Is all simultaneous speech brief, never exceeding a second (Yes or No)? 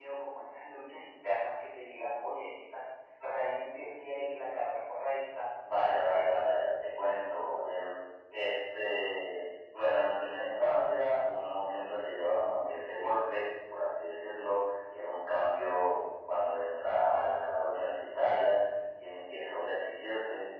Yes